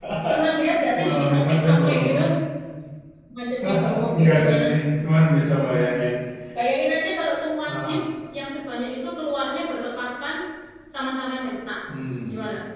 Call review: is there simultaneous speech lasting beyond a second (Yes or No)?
Yes